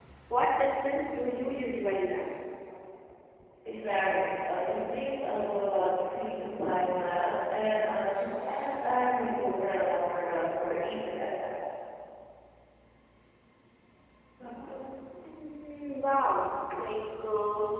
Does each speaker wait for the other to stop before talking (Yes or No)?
Yes